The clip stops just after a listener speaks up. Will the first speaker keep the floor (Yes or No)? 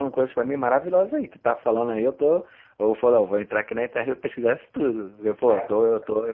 Yes